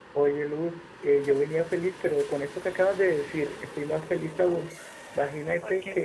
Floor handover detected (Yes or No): No